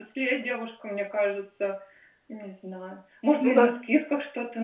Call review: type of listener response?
listening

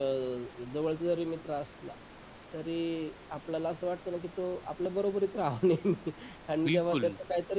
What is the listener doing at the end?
listening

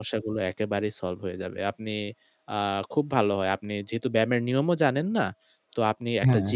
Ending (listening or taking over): listening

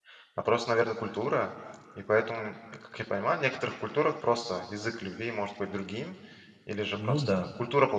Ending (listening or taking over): listening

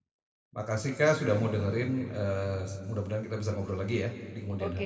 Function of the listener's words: taking over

